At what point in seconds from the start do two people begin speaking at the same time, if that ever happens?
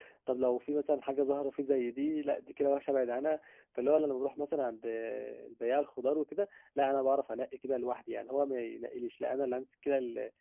none

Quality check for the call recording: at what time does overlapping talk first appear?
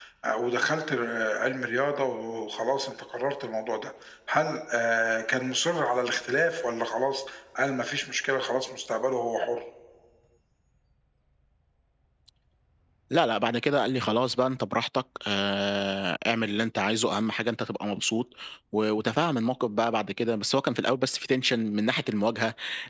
none

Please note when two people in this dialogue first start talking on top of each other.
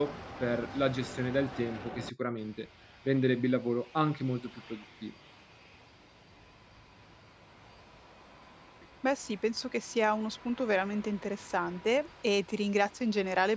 none

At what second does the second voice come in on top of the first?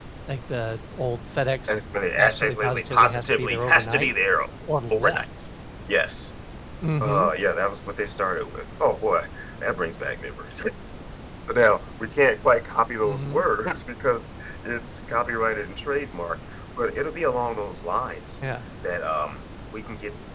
2.2 s

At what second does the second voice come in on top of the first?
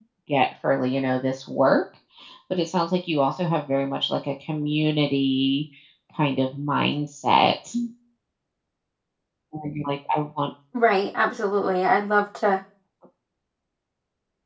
none

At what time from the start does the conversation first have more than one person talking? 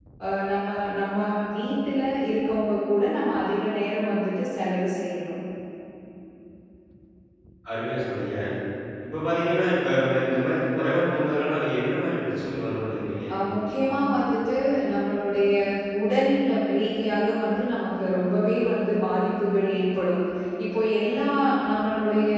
none

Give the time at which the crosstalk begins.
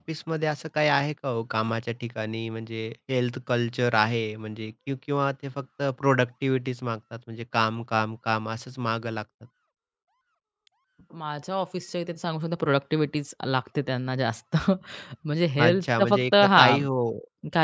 15.6 s

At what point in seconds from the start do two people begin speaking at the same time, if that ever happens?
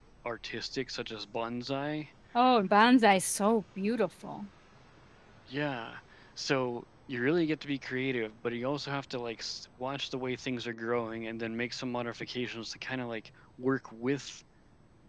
none

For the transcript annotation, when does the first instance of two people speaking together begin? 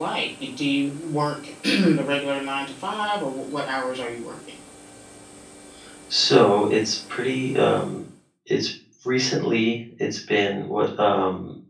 none

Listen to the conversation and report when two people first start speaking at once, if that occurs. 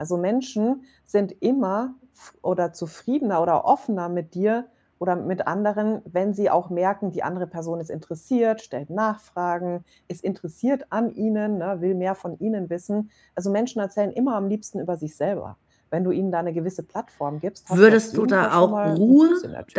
17.7 s

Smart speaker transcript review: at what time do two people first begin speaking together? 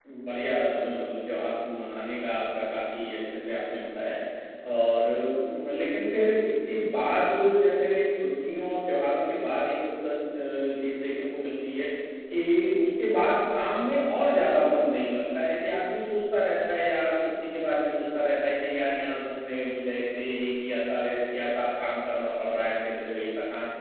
none

